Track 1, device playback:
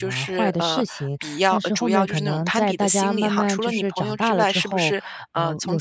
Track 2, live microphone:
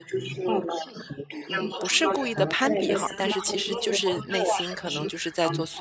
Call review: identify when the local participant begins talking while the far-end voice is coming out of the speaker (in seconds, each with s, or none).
1.5 s